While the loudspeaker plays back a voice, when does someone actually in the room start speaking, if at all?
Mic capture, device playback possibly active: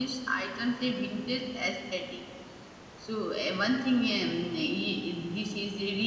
none

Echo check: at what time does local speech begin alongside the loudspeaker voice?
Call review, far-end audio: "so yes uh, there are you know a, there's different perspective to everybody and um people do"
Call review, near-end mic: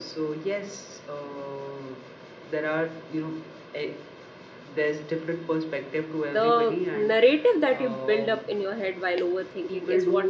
6 s

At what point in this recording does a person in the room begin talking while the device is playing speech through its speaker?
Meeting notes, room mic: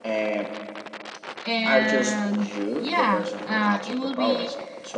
1 s

